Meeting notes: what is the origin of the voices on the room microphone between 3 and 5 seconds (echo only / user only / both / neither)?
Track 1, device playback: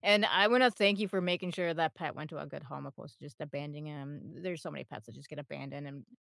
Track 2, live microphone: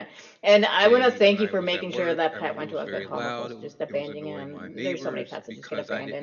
both